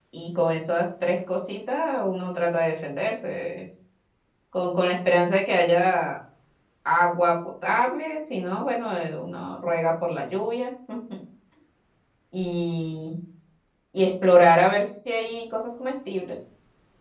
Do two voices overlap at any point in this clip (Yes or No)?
No